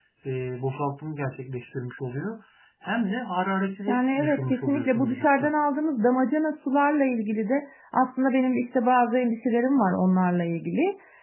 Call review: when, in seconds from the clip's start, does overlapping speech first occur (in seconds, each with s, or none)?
3.9 s